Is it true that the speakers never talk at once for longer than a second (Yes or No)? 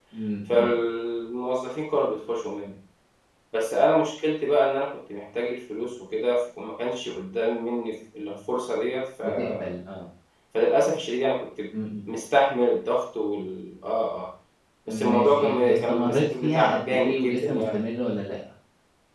No